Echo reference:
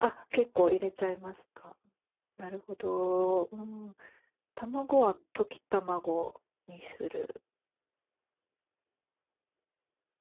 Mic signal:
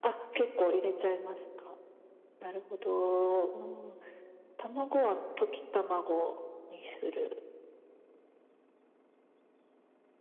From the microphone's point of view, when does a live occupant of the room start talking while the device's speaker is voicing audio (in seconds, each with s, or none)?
none